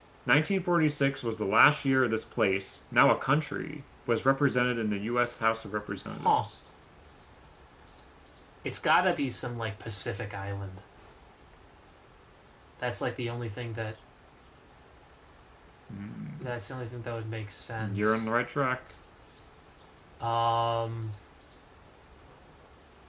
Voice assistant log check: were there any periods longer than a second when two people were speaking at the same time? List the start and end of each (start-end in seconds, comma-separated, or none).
none